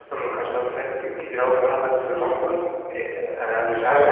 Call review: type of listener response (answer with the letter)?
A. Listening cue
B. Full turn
A